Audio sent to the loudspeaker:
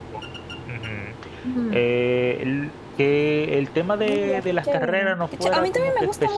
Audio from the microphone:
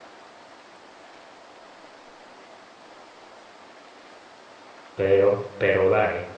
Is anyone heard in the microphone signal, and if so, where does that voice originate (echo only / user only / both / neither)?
user only